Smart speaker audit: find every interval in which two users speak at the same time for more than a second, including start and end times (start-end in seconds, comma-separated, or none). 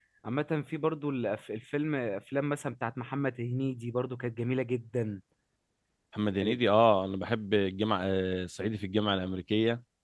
none